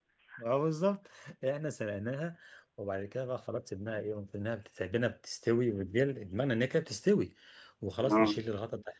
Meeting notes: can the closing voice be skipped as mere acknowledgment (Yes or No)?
Yes